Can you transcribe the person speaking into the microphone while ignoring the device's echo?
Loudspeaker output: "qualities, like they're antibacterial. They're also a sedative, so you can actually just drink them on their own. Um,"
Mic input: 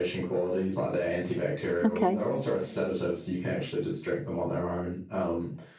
Okay.

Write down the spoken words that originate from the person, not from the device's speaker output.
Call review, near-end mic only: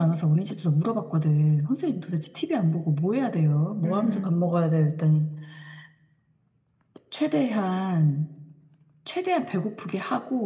음,

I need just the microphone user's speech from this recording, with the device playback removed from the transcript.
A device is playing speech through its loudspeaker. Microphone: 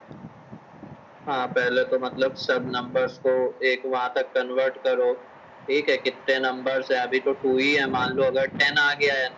none

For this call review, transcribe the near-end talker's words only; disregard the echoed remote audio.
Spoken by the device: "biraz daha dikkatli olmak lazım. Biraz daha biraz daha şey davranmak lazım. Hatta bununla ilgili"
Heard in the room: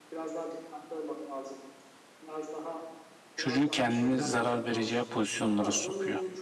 Çocuğun kendini zarar vereceği pozisyonlara sokuyor.

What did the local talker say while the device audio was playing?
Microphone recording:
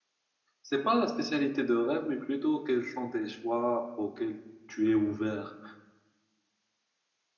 c'est pas la spécialité de rêve, mais plutôt quels sont tes choix auxquels tu es ouvert.

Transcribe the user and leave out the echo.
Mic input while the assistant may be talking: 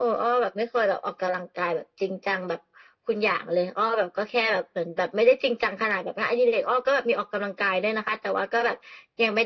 none

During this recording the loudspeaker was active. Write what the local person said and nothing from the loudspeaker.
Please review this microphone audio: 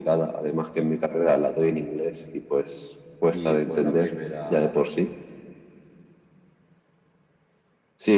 Y fue la primera

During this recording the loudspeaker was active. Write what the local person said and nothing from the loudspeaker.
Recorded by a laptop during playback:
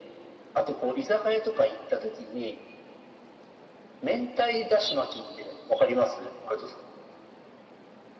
none

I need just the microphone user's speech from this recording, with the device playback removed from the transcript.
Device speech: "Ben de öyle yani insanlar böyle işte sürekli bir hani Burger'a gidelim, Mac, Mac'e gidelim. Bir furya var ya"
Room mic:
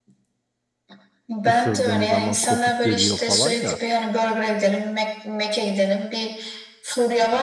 ısırdığın zaman kopup geliyor falan ya.

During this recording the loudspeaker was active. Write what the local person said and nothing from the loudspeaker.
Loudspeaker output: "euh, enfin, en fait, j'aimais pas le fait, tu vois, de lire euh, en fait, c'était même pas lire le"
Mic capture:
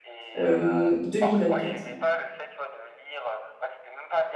euh, 2024.

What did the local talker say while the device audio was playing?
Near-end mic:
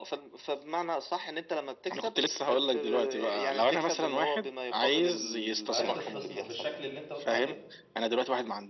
لو عايز تستثمر بالشكل اللي انت قلت عليه

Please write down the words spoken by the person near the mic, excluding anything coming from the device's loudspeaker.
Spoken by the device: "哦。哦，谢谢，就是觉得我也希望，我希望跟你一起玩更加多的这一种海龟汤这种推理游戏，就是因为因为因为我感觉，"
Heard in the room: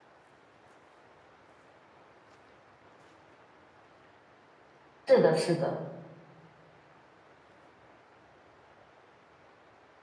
是的，是的，

